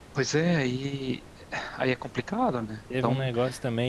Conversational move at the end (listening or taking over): taking over